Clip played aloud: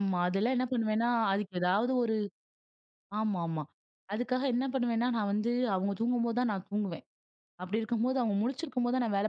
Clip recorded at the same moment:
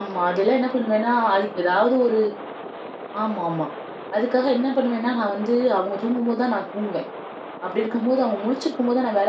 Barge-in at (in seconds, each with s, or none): none